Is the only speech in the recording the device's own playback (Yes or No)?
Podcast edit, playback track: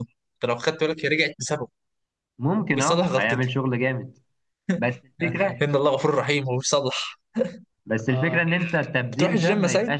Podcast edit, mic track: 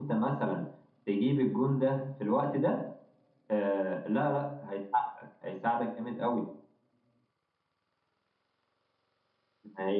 No